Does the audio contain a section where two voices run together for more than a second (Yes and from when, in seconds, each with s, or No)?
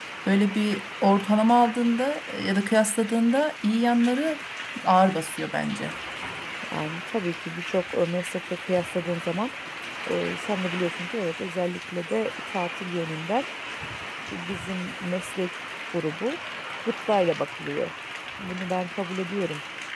No